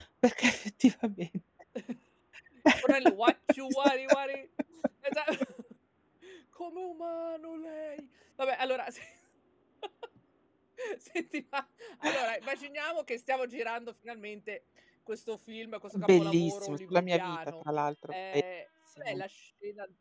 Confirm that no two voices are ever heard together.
No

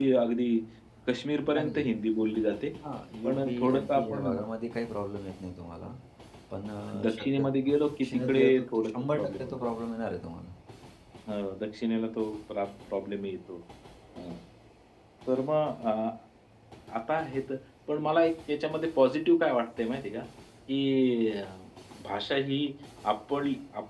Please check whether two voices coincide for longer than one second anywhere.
Yes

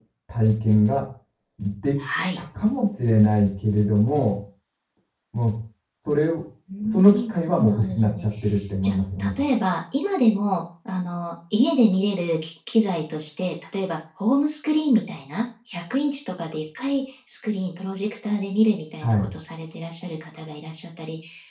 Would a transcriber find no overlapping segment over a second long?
No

